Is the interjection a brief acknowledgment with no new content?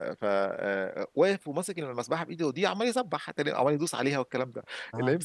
Yes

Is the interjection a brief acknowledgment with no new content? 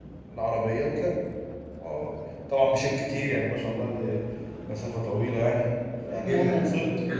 No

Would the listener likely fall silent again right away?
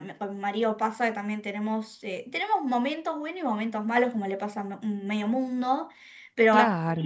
Yes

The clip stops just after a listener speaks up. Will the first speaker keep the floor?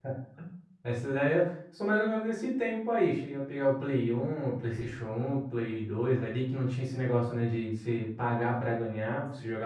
Yes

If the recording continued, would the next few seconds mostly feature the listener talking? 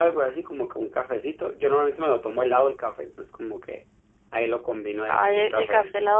Yes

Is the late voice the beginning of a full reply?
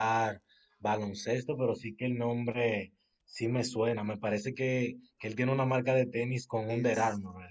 Yes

